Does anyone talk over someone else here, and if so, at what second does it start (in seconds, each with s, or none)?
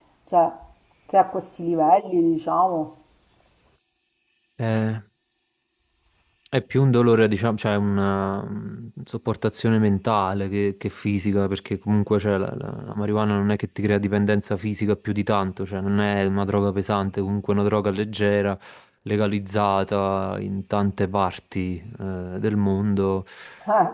none